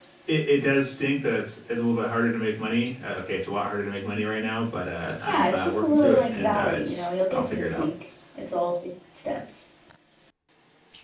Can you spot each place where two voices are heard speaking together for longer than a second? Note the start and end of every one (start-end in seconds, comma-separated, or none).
5.3-7.9